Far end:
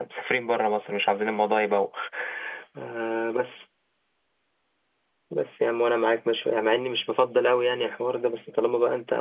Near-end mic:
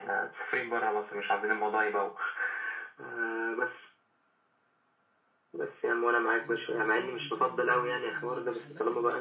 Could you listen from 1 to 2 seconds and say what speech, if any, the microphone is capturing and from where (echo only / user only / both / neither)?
echo only